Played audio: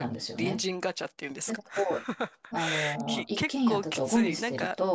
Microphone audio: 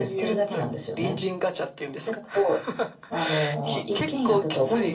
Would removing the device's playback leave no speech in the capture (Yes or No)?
Yes